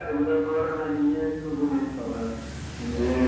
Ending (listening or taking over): taking over